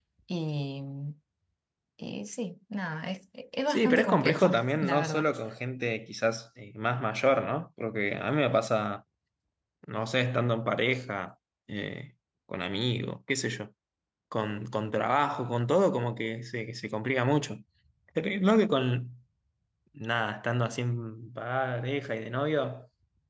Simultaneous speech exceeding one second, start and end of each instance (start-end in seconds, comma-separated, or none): 3.7-5.3